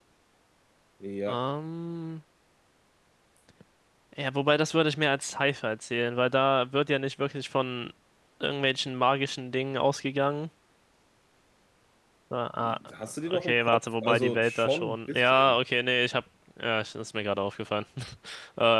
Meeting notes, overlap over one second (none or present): present